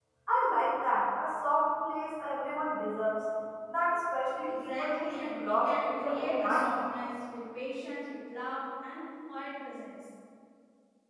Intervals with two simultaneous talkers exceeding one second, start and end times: 4.5-6.7

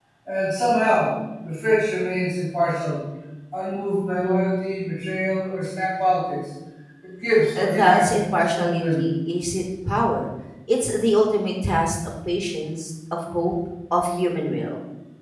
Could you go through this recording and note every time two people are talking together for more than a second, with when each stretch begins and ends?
7.6-9.1

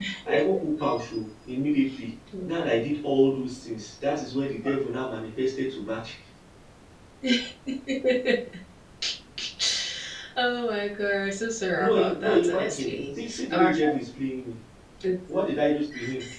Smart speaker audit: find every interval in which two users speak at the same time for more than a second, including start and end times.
11.8-13.9

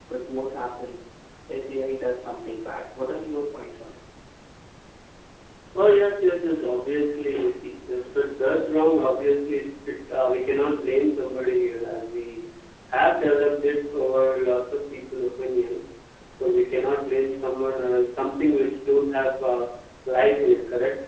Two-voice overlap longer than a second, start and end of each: none

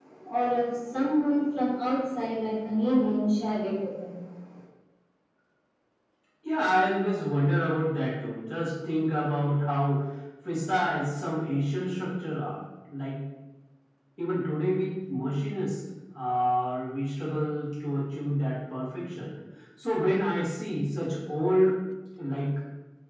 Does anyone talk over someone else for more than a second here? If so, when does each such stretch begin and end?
none

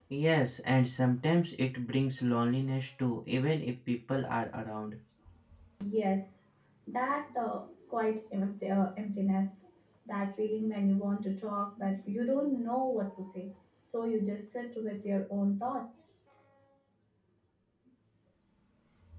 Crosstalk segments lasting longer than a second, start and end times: none

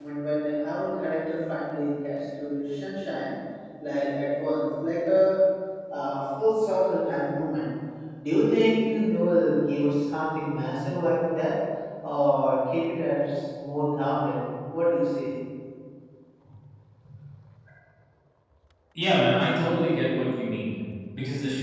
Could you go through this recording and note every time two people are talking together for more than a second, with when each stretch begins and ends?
none

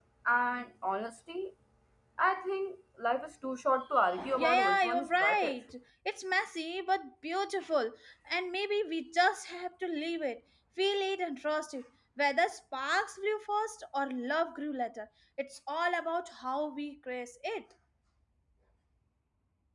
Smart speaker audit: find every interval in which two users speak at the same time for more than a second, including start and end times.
4.2-5.6

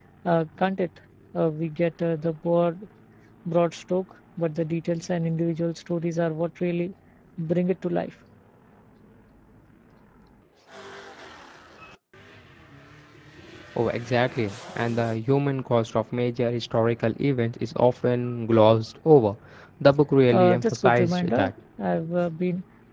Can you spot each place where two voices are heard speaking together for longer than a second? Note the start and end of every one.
20.3-21.5

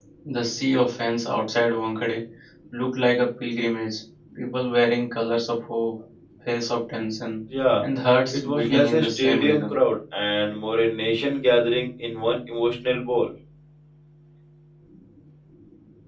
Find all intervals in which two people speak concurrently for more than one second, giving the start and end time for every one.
8.3-9.7

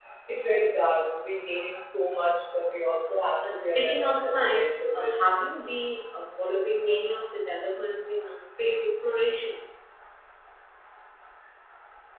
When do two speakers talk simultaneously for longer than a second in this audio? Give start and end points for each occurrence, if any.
3.5-5.2

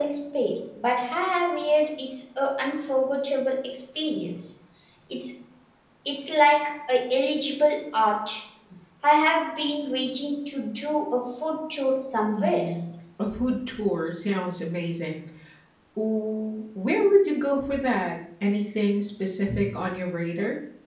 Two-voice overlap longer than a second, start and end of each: none

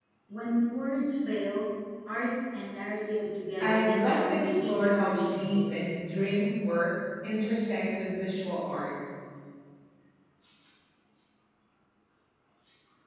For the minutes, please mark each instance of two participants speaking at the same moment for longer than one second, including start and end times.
3.6-5.6

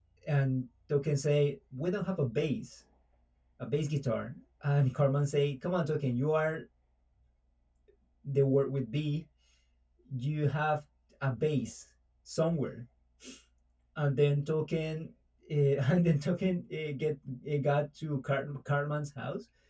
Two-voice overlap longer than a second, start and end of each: none

